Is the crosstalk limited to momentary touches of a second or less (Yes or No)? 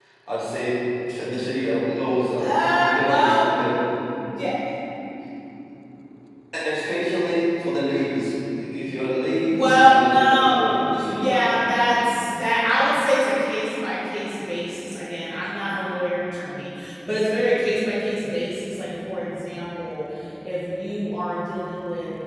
No